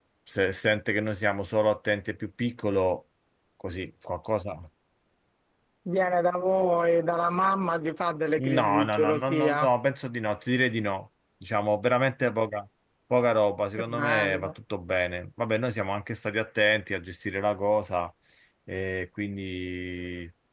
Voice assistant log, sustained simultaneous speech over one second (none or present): present